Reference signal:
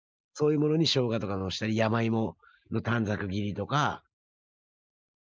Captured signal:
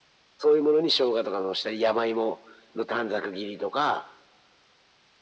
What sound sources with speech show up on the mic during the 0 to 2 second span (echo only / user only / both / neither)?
echo only